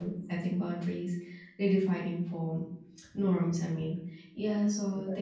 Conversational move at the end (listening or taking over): listening